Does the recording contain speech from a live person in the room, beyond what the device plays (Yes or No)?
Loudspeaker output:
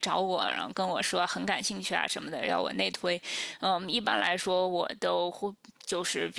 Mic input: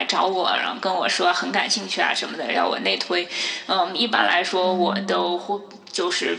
Yes